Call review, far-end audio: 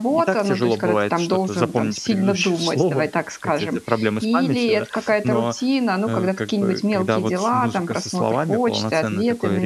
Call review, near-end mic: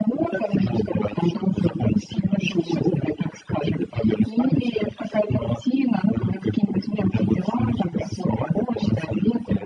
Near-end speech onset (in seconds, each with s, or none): none